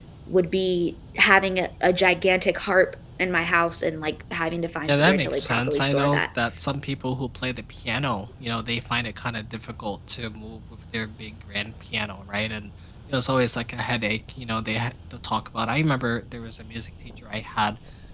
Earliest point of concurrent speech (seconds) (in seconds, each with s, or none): 4.8 s